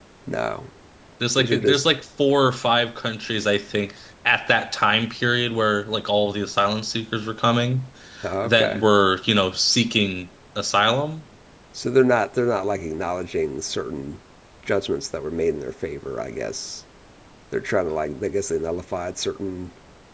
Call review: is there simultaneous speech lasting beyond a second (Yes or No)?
No